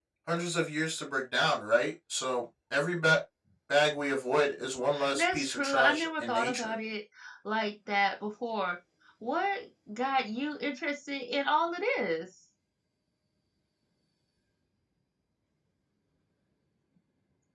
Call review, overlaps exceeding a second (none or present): present